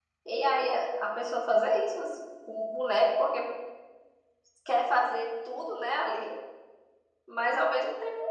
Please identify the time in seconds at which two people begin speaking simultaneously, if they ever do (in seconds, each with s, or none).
none